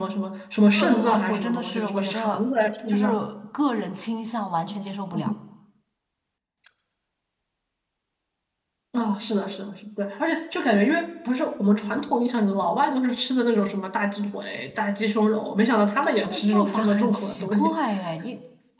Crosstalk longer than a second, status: present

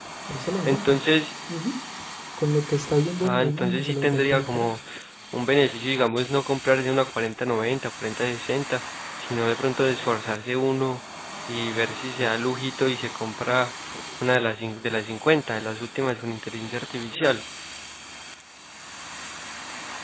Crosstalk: present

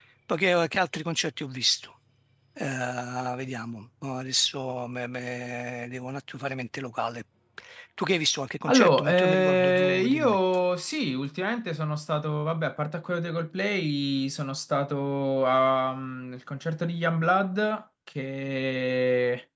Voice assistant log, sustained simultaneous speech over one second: present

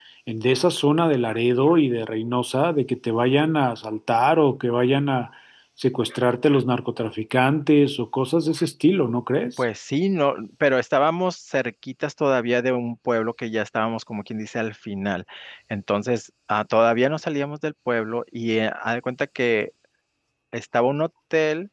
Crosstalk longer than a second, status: none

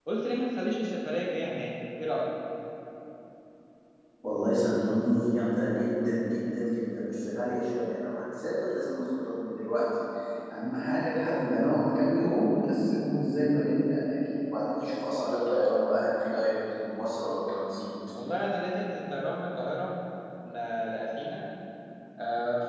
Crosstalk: none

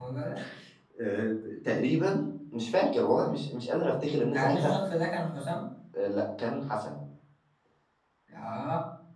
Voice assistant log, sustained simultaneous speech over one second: none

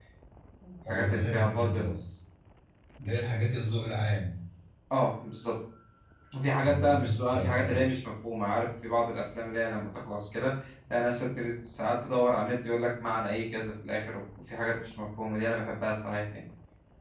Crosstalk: present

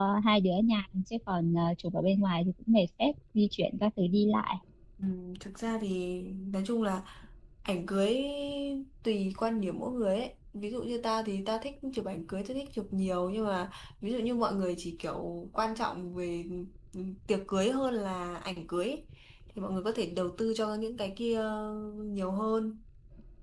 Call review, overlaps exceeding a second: none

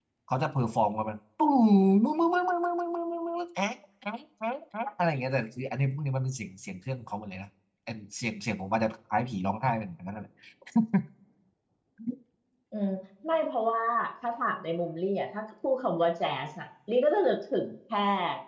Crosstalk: none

